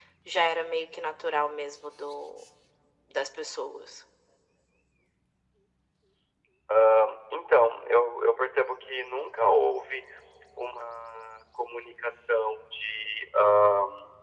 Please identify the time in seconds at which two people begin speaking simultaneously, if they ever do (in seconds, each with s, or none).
none